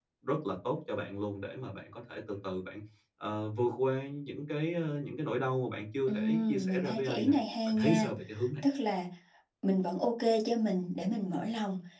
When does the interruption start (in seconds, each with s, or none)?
6.1 s